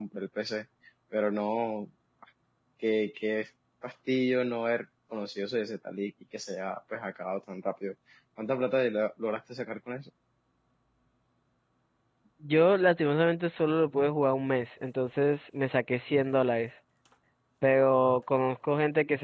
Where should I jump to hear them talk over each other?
none

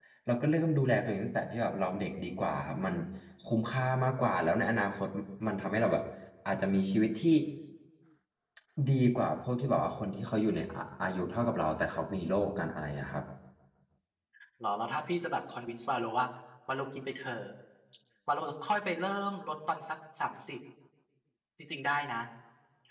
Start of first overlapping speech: none

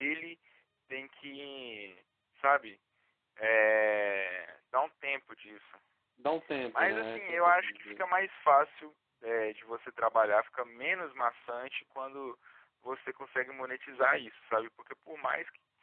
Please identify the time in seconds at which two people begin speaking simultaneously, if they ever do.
7 s

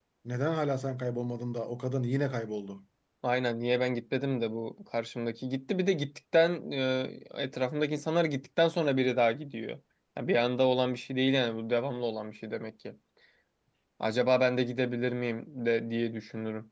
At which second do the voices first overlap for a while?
none

